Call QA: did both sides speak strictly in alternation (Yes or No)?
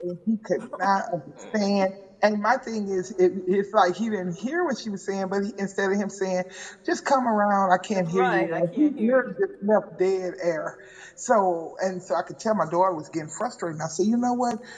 No